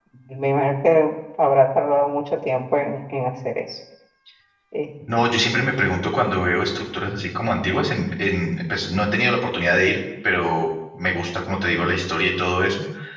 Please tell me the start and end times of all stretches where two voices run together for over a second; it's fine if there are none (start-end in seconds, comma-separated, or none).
none